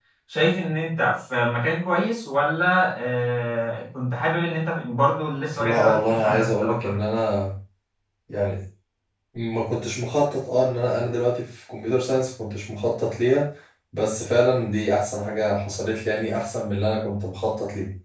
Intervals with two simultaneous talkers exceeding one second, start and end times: 5.6-7.0

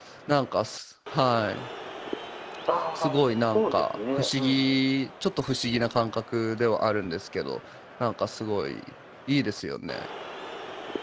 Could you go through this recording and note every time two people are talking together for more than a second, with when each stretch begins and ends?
3.0-4.9

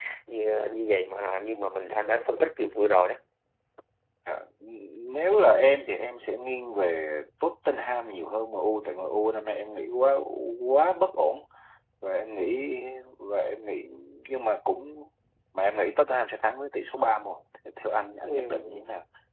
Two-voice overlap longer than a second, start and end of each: none

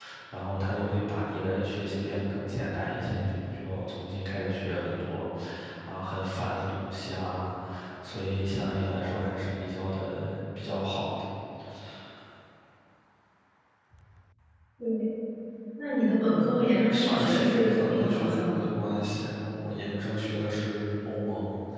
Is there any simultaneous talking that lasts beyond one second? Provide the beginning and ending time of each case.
16.3-18.7

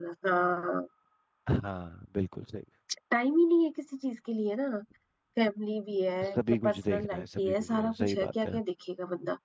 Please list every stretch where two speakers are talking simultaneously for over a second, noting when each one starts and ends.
6.6-8.6

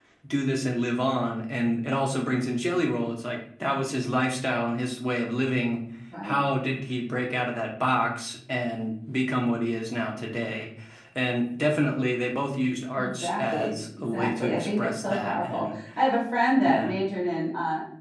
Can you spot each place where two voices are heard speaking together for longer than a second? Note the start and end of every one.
13.0-15.8

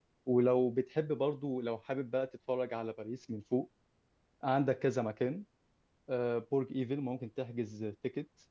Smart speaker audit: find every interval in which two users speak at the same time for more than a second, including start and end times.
none

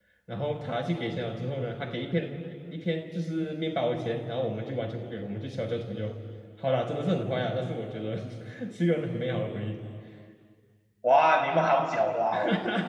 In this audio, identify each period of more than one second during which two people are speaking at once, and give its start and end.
none

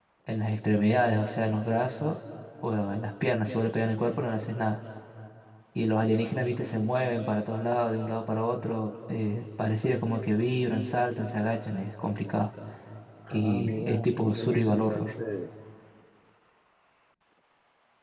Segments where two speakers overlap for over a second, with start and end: 13.3-15.1

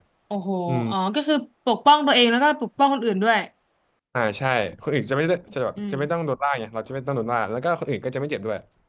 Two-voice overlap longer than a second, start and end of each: none

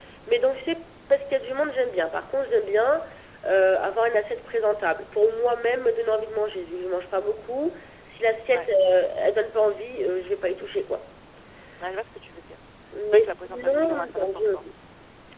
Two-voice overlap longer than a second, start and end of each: 13.0-14.5

